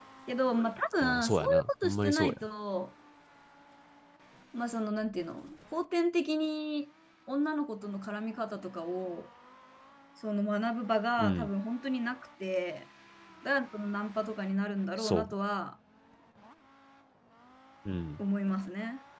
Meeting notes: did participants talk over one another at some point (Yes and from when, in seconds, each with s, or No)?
Yes, from 1.0 s